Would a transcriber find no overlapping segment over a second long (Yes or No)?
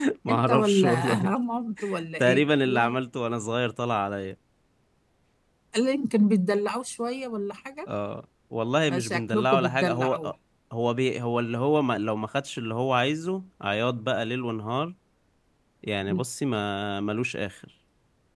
No